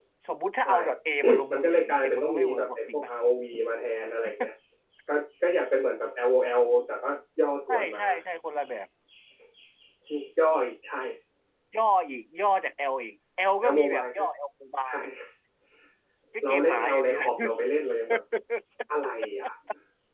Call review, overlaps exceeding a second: present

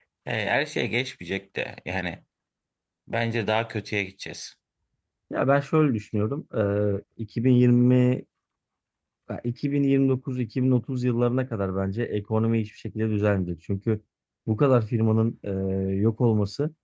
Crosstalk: none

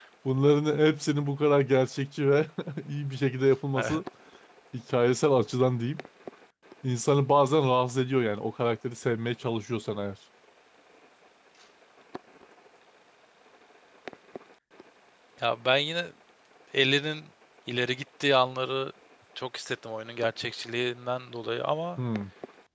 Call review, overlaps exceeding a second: none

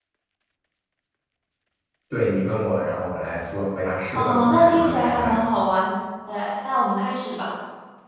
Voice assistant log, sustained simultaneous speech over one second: present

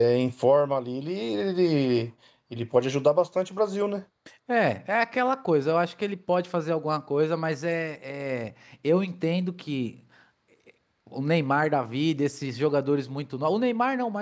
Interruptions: none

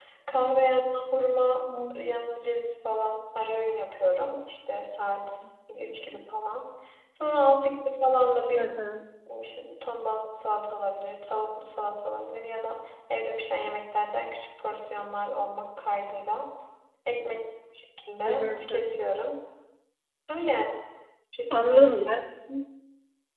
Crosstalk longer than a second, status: none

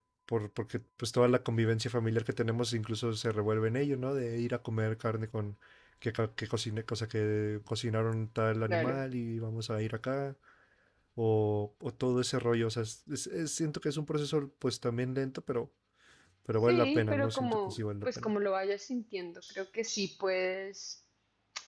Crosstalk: present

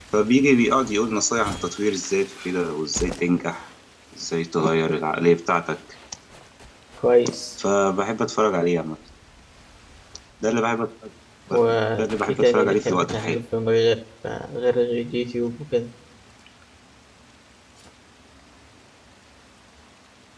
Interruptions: present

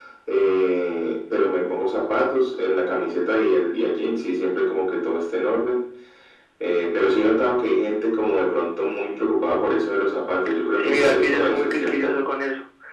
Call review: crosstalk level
present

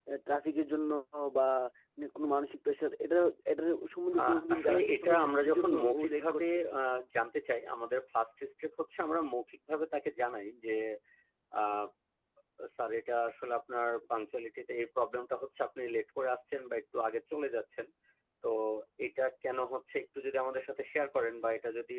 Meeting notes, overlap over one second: present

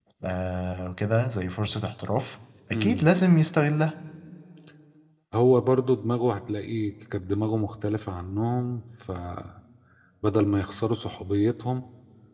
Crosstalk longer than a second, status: none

